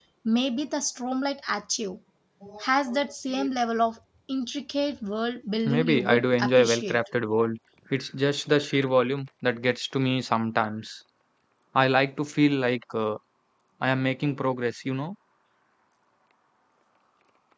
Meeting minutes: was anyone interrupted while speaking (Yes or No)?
Yes